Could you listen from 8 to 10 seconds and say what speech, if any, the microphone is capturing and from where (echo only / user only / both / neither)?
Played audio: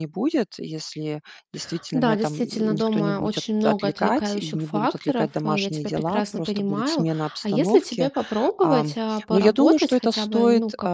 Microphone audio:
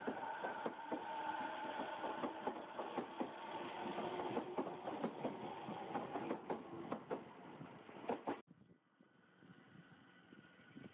neither